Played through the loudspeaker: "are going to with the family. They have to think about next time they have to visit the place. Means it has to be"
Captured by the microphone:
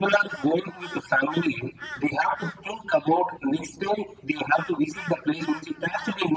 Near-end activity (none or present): none